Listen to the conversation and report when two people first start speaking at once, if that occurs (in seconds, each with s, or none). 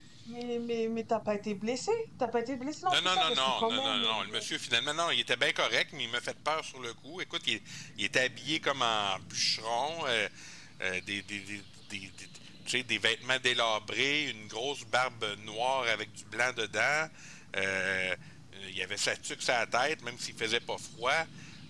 2.9 s